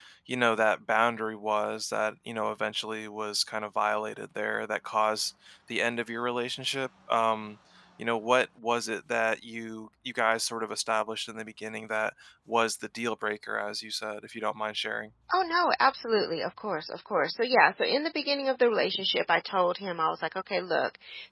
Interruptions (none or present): none